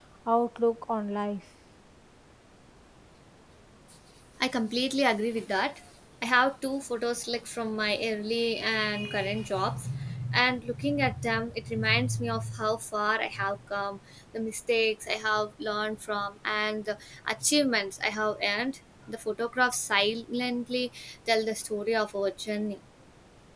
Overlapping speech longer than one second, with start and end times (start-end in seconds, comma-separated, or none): none